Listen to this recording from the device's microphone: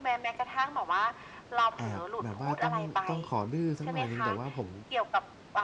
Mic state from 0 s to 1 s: echo only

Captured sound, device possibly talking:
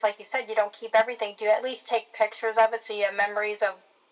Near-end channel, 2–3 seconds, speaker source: echo only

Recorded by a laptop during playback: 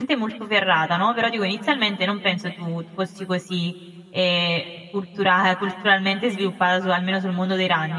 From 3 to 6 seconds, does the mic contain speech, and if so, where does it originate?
user only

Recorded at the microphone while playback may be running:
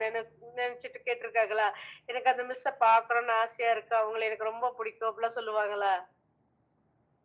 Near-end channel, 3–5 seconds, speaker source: echo only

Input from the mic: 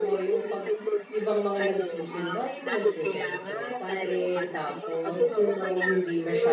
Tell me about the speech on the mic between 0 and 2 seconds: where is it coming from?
both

